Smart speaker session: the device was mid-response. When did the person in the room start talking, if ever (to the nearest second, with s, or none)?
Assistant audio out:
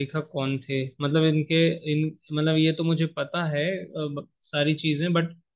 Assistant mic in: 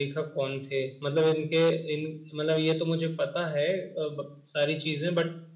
none